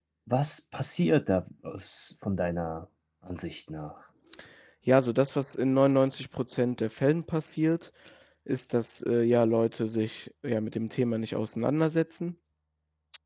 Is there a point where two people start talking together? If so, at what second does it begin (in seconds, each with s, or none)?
none